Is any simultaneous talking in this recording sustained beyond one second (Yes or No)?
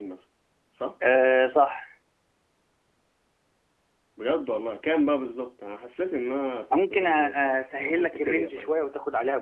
Yes